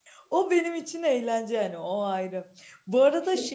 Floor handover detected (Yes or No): No